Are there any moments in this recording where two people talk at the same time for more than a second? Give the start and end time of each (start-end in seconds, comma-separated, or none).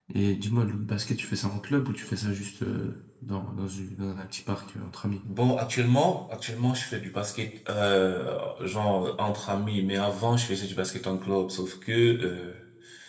none